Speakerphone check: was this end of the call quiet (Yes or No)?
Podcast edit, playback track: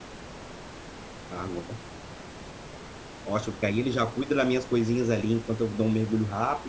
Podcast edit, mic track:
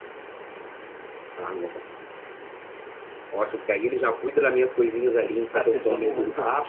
No